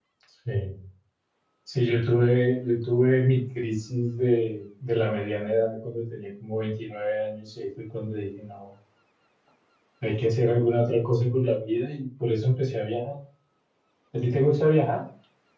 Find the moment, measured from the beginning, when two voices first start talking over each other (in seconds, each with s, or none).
none